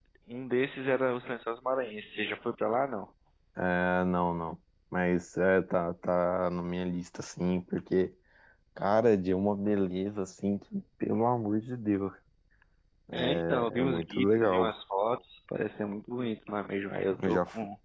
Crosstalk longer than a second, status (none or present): present